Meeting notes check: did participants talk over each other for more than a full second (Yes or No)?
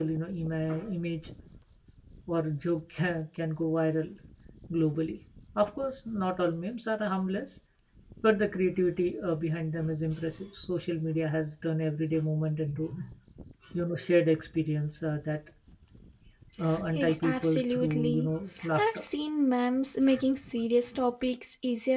Yes